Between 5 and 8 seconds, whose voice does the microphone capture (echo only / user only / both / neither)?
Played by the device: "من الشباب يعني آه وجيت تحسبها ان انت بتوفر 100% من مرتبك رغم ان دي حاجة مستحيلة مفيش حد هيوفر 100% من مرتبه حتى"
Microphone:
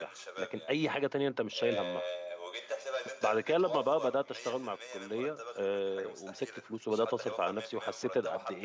both